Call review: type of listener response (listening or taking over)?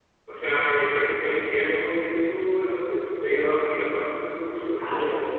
taking over